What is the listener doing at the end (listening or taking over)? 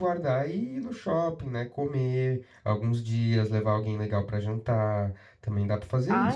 taking over